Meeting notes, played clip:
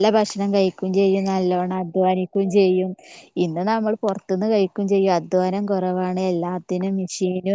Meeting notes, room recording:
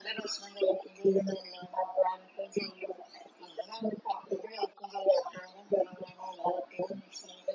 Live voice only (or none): none